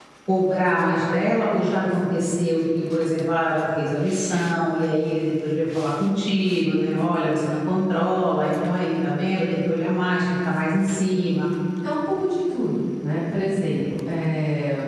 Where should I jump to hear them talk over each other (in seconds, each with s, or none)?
none